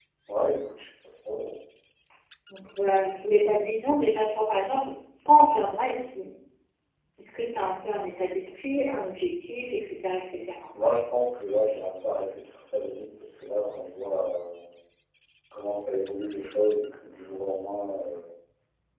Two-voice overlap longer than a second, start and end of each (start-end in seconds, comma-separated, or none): none